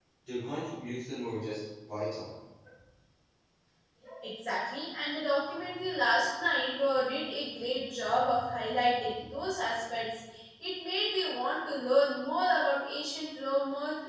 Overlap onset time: none

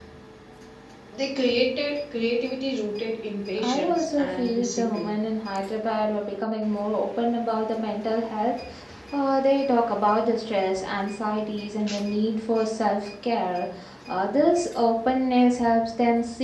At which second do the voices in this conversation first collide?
3.6 s

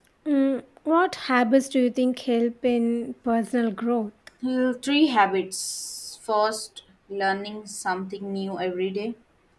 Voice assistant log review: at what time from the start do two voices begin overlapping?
none

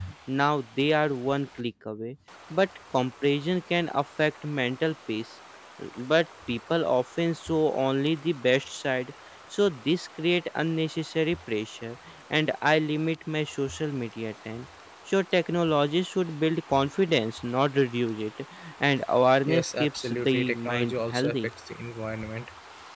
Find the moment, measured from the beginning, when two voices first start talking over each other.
19.5 s

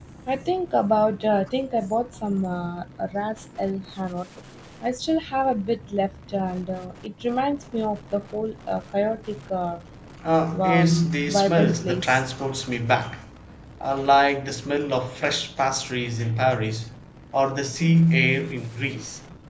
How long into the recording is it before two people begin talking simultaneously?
10.6 s

